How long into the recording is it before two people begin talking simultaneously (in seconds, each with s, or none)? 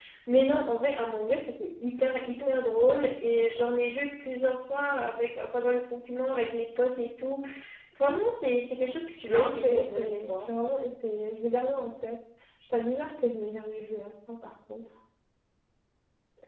9.3 s